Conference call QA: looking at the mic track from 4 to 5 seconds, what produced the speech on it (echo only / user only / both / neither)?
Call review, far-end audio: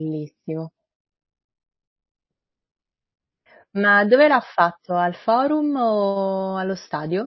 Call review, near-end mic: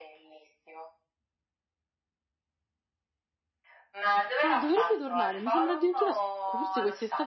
both